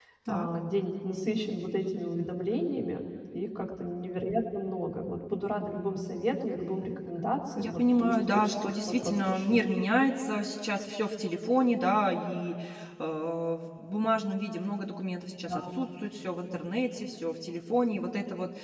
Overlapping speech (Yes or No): Yes